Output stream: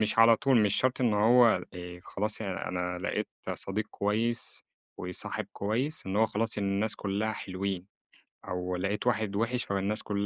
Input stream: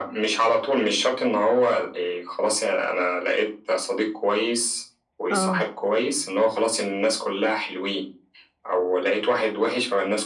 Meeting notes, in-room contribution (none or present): present